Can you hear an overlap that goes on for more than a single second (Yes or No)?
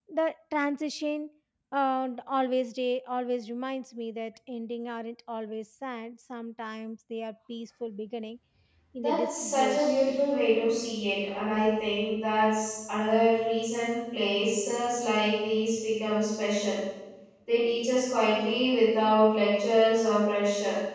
Yes